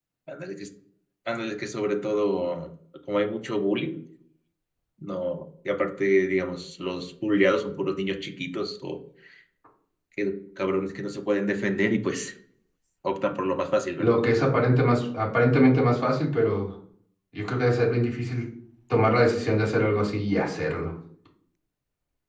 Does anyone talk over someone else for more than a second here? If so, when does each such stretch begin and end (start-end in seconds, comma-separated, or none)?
none